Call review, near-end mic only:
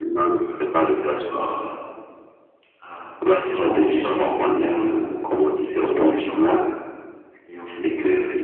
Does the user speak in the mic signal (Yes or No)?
Yes